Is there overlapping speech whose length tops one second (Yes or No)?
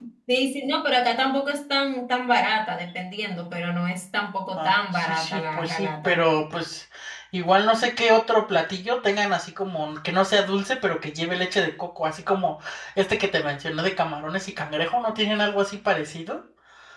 Yes